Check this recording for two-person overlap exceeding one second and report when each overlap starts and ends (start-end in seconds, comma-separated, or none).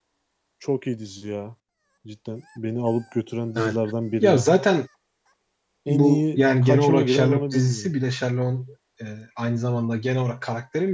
5.9-7.9